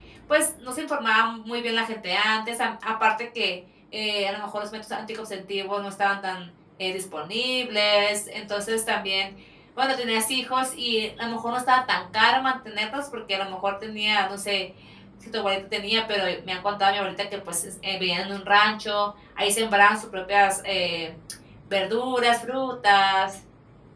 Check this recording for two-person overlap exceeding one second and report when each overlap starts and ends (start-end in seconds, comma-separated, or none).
none